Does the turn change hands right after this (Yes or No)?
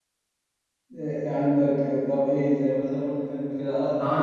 Yes